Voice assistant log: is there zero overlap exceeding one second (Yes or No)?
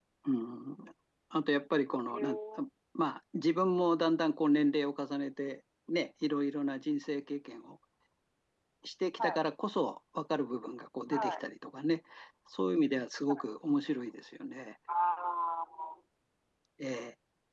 Yes